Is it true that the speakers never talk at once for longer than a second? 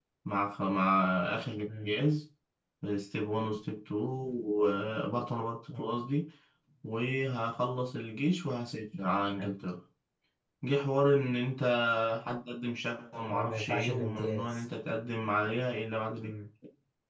No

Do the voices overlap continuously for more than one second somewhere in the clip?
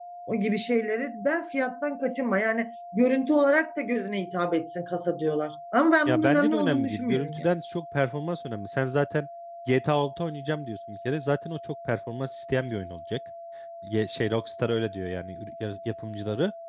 Yes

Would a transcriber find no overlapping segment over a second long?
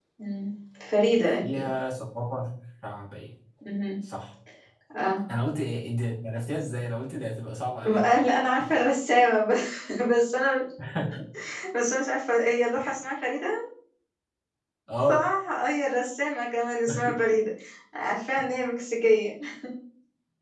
Yes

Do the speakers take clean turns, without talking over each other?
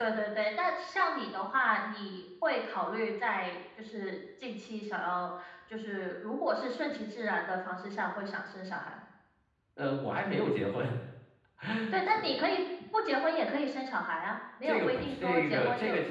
No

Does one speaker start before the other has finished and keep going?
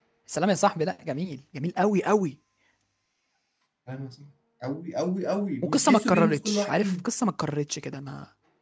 Yes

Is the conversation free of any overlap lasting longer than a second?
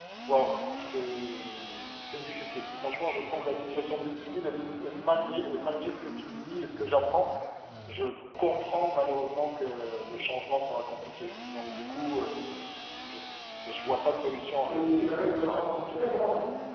No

